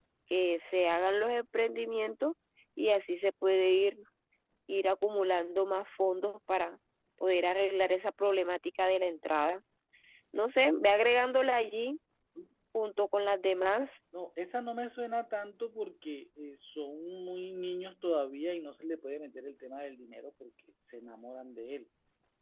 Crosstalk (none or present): none